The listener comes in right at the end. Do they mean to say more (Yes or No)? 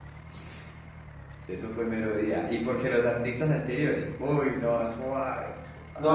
Yes